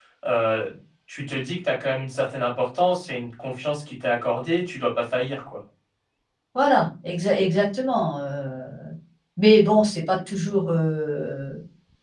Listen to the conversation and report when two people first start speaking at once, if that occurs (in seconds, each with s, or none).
none